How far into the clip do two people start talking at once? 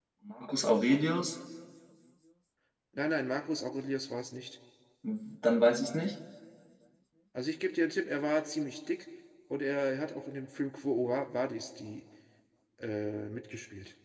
none

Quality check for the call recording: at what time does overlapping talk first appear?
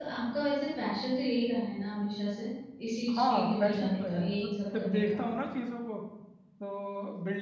3.1 s

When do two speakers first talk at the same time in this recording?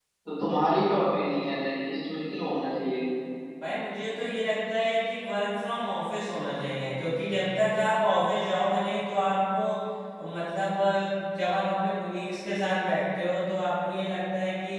none

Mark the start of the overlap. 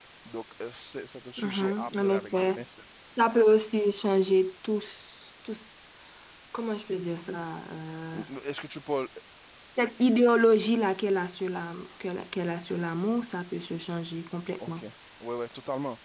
1.4 s

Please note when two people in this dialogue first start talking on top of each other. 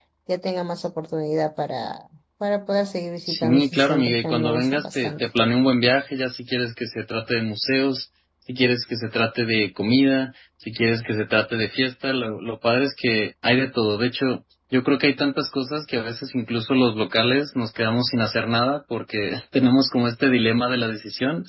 3.3 s

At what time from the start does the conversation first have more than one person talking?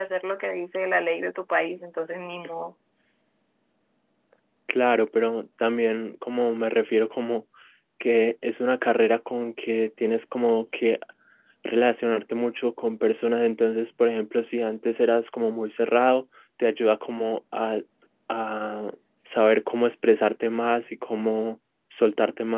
none

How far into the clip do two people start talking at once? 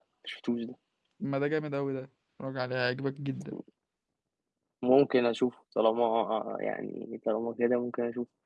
none

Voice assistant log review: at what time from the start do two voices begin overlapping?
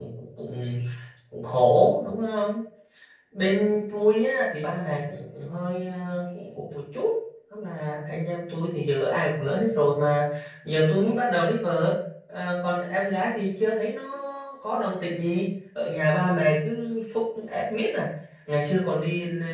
none

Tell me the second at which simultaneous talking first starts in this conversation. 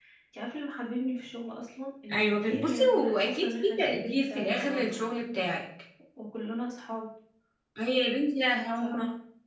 2.1 s

